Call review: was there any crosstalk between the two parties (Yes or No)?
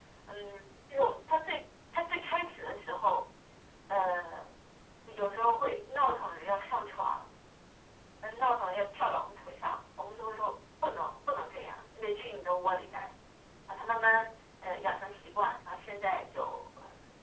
No